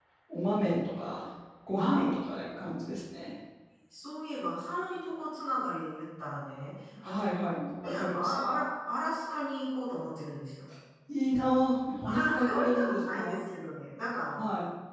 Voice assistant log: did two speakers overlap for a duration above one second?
Yes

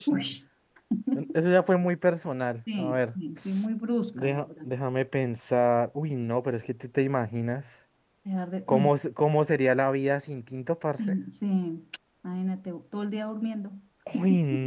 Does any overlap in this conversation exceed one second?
No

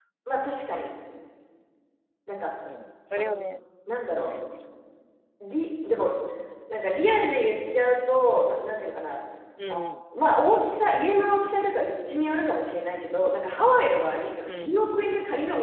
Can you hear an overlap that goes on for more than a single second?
No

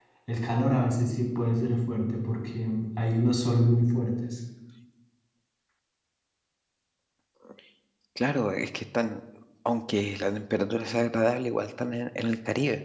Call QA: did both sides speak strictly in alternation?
Yes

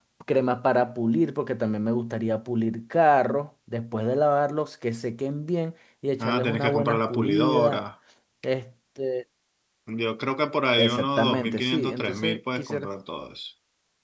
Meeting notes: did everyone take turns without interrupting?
No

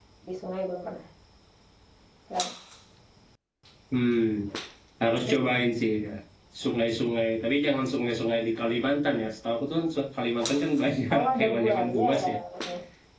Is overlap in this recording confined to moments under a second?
No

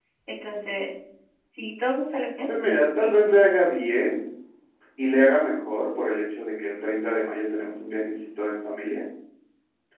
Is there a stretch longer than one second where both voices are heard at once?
No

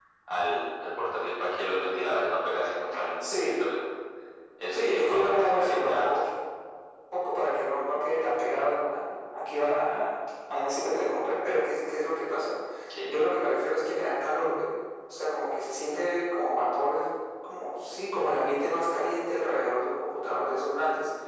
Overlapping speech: Yes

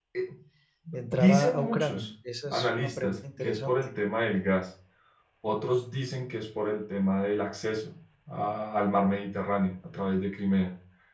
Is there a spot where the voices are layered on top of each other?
Yes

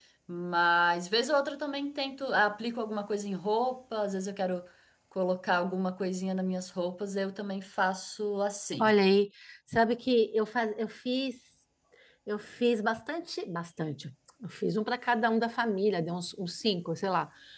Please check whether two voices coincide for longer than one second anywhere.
No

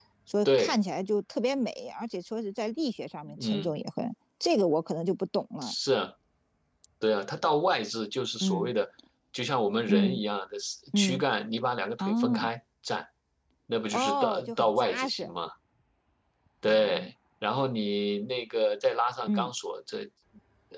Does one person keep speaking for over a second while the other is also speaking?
Yes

